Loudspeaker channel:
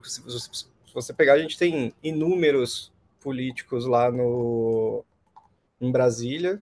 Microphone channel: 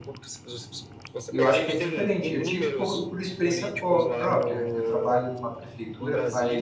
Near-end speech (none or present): present